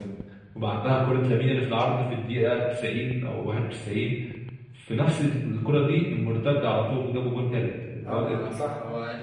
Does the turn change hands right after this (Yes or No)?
Yes